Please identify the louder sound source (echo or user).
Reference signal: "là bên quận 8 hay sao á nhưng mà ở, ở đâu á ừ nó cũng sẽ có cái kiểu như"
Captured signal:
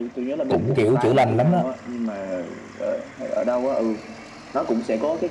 user